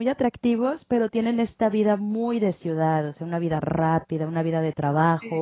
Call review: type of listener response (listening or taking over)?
listening